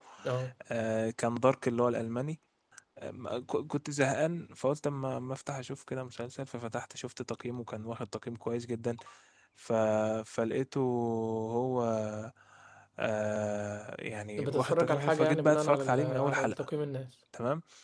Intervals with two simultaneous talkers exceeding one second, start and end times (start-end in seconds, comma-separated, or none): 14.4-16.6